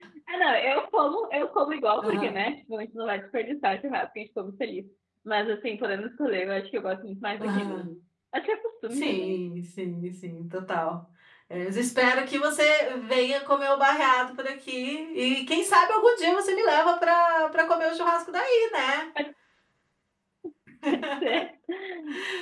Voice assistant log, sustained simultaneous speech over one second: none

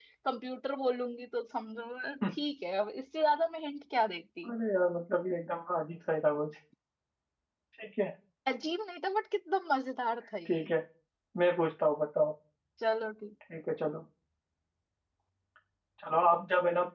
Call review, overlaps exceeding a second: none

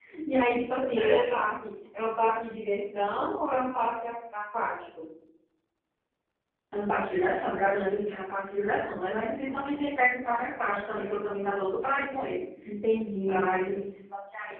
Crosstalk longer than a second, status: none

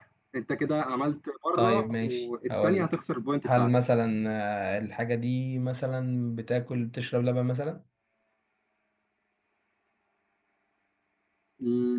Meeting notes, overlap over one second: present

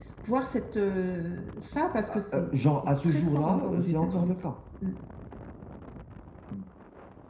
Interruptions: present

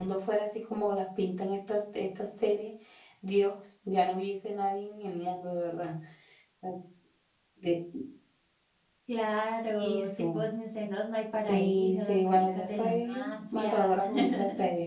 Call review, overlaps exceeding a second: present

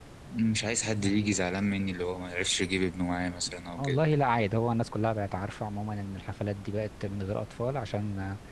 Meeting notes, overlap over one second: none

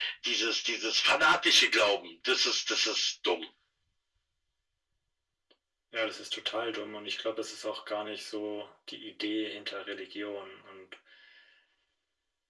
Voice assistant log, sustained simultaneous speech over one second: none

